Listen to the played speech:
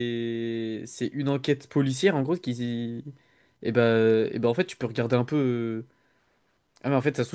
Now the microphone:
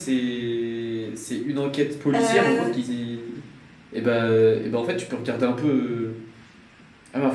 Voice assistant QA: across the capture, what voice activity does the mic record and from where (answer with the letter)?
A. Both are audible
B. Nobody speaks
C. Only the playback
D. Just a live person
A